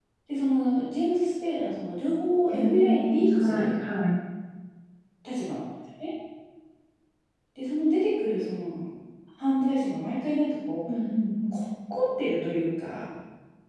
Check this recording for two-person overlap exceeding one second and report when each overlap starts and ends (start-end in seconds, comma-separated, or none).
2.5-3.8